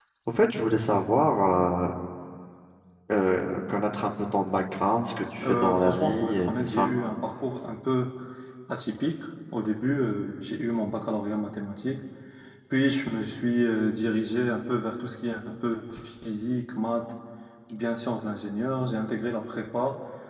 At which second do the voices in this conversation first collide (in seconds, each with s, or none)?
5.4 s